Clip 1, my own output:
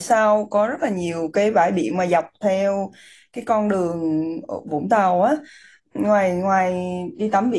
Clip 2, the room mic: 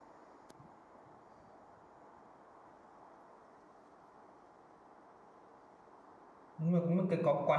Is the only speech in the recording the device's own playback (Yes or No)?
No